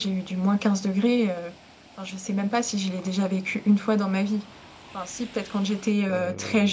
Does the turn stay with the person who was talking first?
Yes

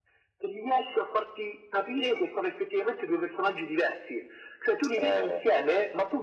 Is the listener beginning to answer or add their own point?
No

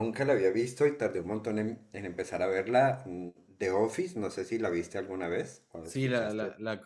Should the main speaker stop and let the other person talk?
Yes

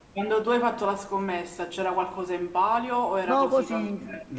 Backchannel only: No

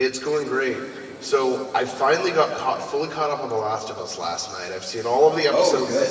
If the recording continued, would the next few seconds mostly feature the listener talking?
No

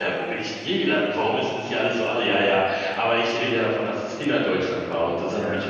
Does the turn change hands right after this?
No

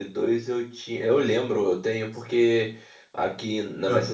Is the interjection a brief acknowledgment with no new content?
Yes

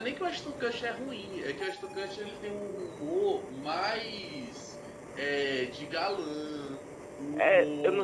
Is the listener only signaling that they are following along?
No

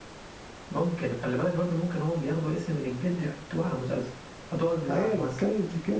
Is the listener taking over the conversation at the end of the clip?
Yes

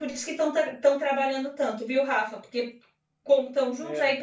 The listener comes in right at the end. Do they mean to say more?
No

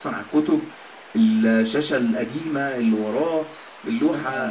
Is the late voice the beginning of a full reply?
Yes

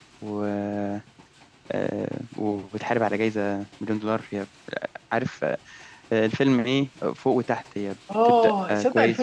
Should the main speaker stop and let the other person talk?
Yes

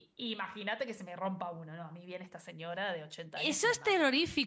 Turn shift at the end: Yes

